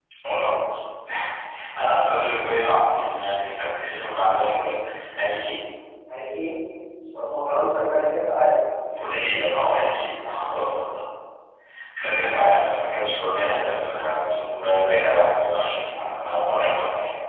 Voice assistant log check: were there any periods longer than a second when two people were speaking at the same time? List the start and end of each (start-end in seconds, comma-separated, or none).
none